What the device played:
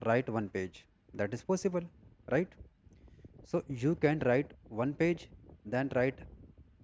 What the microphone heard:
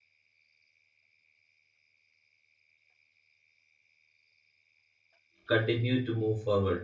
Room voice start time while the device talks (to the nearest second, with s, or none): 5 s